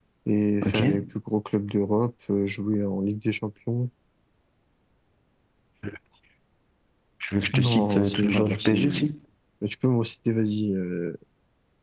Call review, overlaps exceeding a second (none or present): present